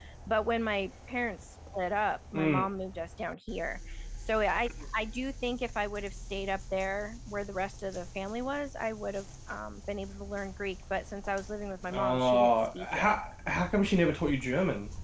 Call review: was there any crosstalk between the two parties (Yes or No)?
Yes